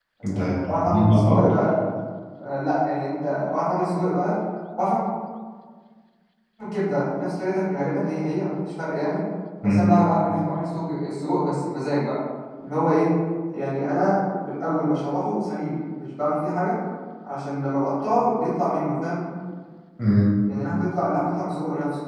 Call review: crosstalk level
present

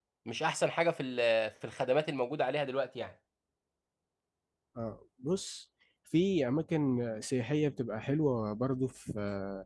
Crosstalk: none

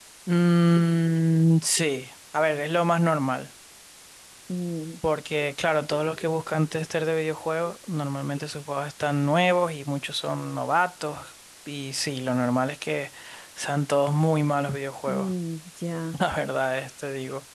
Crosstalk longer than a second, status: none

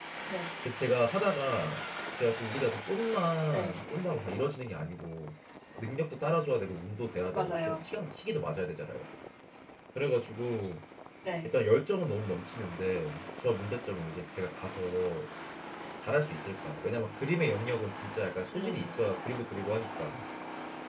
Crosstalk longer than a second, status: none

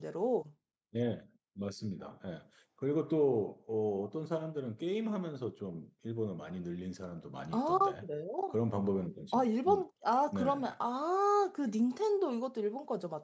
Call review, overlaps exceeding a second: none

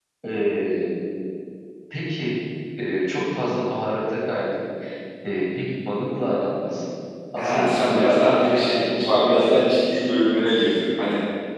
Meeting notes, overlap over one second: present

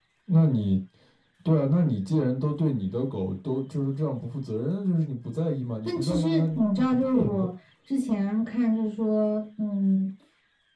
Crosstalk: present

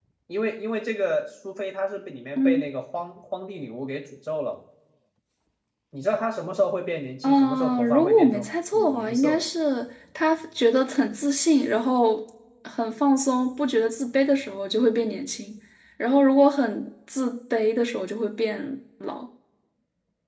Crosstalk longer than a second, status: present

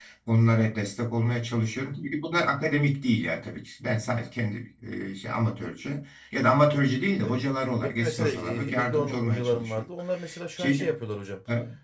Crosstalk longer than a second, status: present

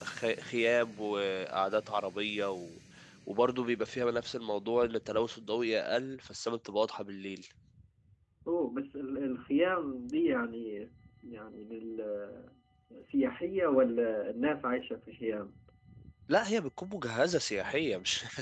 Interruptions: none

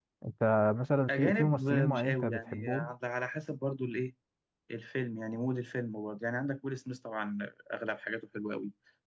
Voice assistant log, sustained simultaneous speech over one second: present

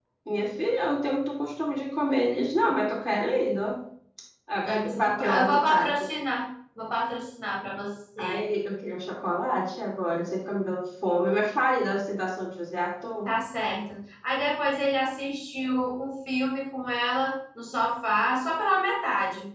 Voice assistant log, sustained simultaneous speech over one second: present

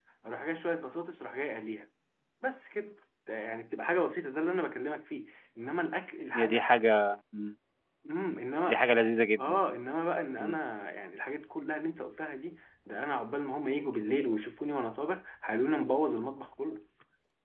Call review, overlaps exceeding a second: none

